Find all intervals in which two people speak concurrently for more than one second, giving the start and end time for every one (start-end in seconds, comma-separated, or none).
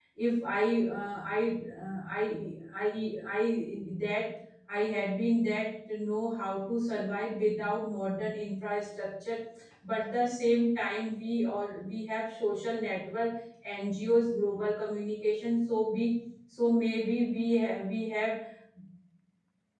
none